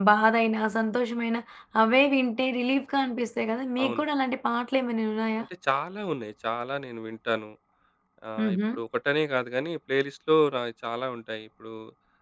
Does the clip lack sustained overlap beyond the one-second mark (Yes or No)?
Yes